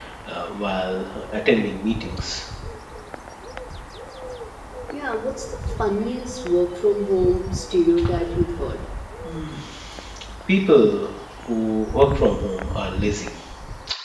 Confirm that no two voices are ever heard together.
Yes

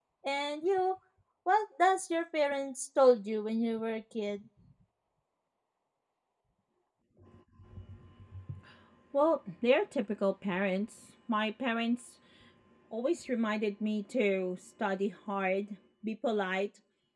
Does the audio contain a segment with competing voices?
No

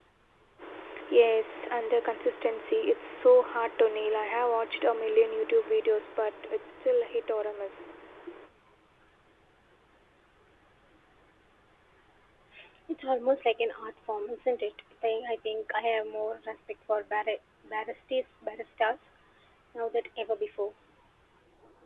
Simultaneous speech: No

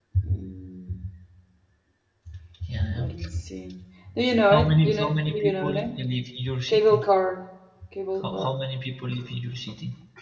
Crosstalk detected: Yes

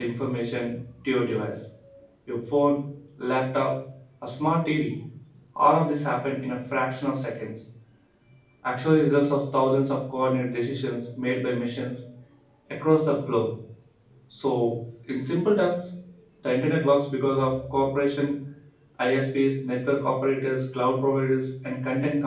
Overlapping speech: No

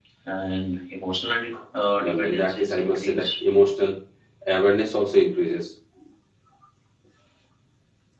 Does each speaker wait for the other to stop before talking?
No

